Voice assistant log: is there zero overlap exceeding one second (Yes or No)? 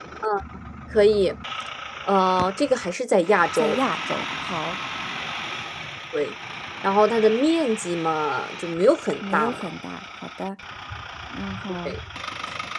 Yes